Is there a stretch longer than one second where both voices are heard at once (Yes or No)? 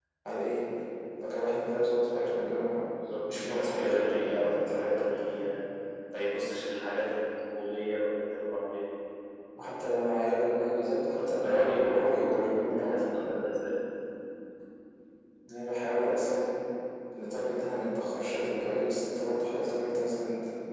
Yes